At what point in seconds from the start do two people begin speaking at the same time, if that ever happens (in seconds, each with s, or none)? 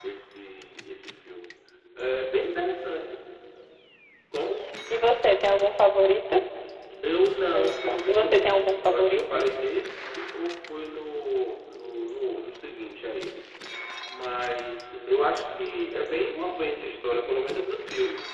7.4 s